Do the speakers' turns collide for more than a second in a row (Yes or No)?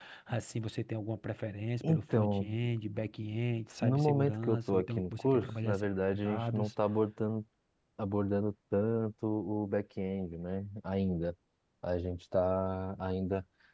Yes